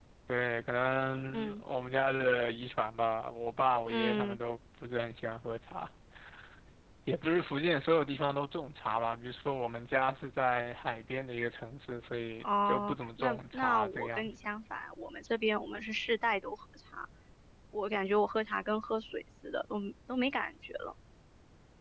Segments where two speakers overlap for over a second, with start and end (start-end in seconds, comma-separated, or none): 12.4-14.3